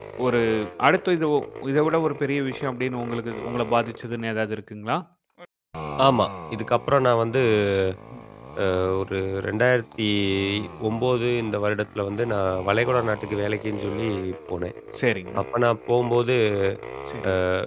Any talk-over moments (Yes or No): No